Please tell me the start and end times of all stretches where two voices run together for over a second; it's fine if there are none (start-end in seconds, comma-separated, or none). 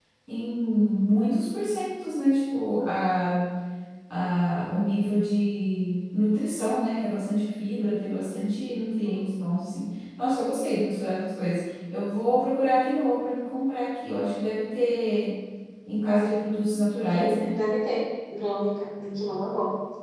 none